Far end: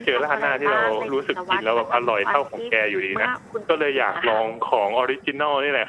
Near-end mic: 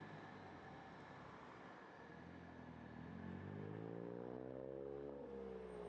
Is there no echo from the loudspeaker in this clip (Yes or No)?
Yes